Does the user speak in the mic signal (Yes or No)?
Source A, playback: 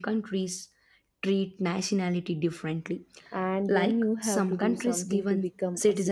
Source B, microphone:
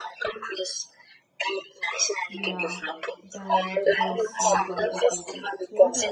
Yes